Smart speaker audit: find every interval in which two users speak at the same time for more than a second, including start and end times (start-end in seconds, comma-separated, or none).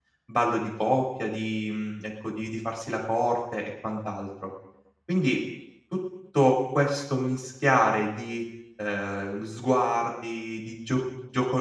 none